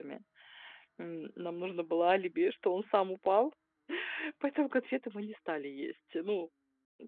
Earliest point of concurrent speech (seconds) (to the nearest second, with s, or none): none